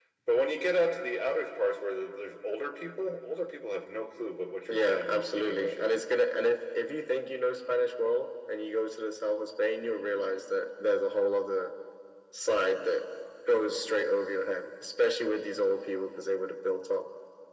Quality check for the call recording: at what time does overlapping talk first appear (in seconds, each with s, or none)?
4.7 s